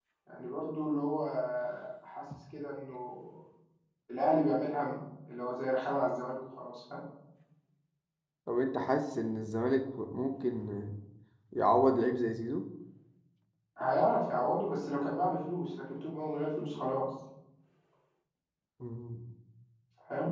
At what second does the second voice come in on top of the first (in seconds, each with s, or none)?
none